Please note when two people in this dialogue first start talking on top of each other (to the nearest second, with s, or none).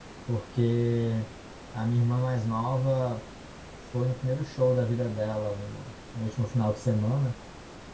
none